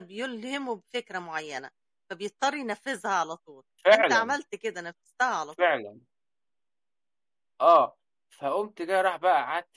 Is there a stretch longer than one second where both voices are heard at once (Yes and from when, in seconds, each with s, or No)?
No